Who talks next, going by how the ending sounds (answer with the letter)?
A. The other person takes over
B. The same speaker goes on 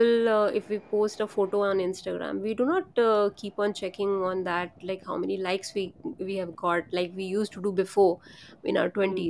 B